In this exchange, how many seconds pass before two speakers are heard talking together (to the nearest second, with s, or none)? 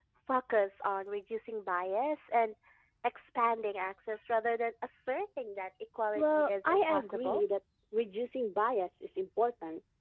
6 s